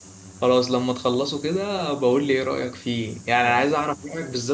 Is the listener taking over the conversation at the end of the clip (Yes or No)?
No